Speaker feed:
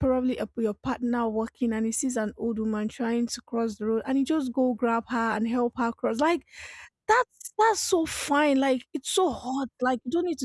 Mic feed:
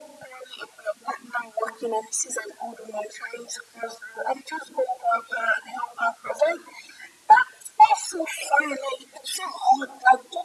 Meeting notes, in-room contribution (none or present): none